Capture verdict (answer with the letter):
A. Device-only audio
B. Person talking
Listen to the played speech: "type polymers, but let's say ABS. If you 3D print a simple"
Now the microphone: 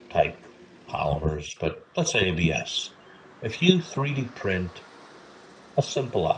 A